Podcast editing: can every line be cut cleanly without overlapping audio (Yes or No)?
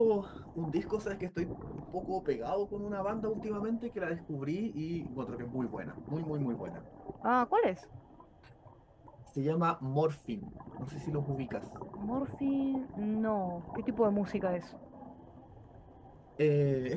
Yes